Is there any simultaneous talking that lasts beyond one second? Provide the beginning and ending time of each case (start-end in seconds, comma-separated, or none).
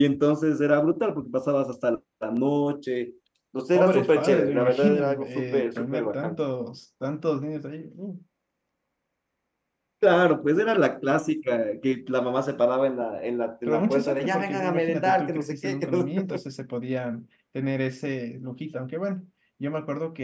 3.8-6.4, 13.7-16.4